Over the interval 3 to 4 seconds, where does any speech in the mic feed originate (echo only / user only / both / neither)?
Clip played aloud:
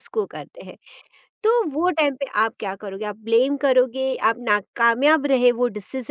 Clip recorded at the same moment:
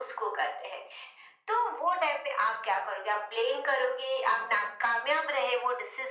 echo only